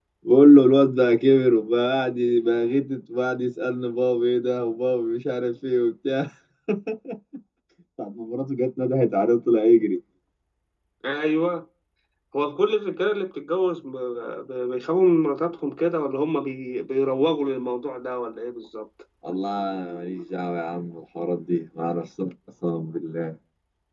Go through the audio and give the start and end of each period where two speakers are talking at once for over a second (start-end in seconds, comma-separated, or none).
none